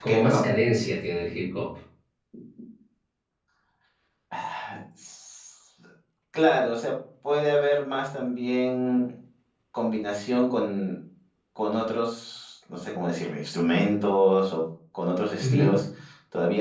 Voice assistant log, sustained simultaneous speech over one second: none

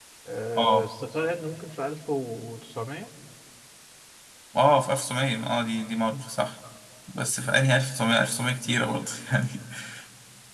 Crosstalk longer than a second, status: none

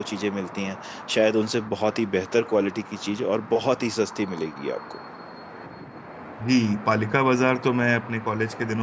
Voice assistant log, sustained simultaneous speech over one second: none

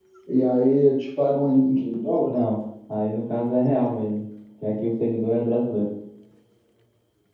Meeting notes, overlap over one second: none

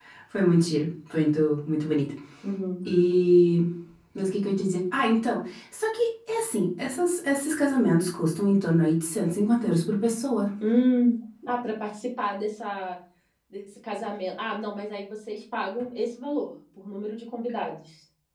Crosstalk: none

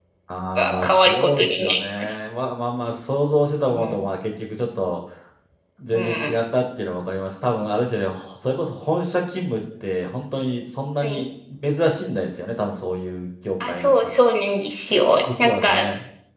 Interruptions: present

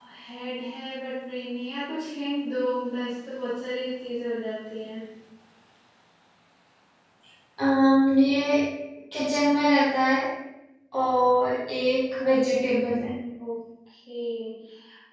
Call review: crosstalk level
none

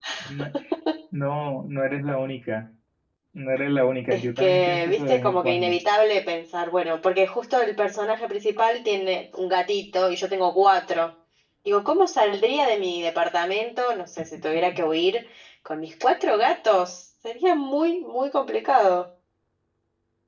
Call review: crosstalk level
present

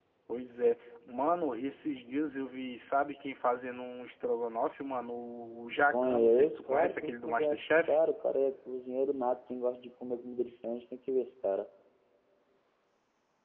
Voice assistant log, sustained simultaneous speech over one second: present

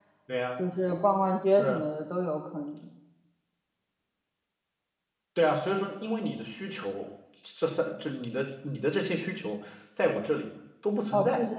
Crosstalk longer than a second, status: none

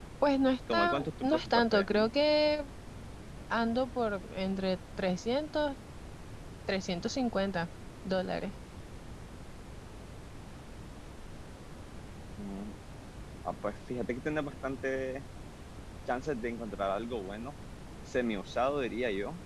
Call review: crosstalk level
present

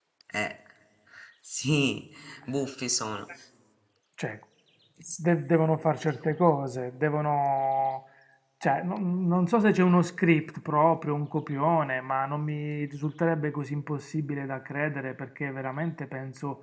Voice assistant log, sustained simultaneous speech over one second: none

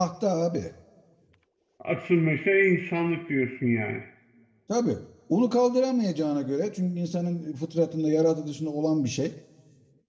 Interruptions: none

